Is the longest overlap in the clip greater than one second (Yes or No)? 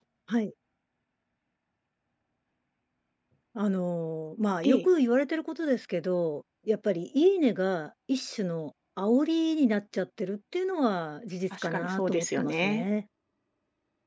Yes